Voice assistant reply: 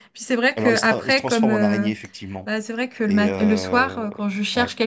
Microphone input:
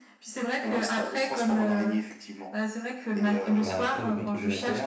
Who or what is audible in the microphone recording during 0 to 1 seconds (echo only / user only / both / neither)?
echo only